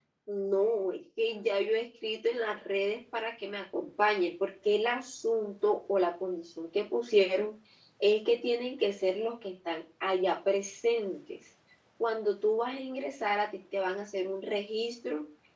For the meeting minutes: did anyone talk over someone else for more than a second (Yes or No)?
No